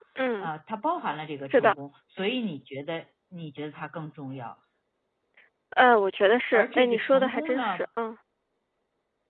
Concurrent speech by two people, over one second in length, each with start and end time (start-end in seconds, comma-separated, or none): 6.5-7.8